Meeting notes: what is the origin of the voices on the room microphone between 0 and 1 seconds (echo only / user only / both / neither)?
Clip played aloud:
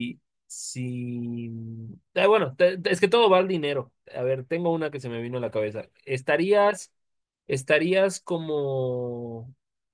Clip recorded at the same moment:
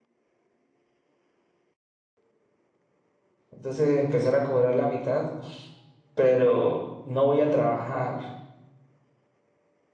neither